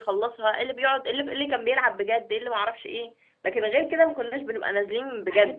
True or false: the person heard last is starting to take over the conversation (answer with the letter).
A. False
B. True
B